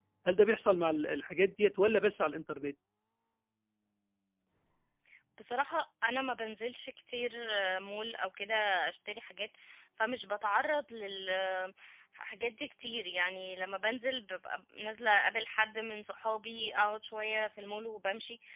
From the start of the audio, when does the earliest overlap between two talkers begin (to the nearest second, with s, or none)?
none